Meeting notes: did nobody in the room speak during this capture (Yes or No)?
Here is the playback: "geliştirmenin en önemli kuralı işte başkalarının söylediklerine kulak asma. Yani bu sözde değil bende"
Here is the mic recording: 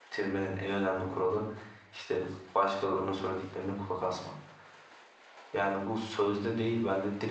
Yes